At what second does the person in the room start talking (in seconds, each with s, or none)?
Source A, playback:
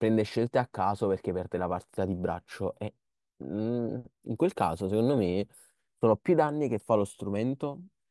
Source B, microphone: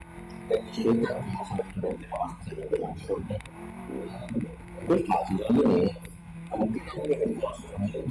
none